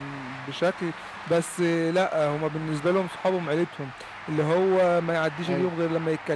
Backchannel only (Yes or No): Yes